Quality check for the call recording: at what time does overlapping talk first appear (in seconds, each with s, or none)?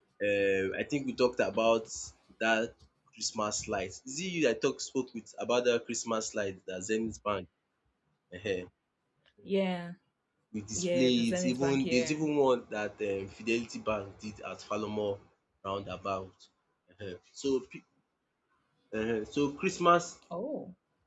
10.8 s